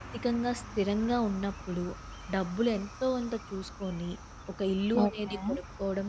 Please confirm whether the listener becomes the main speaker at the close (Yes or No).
No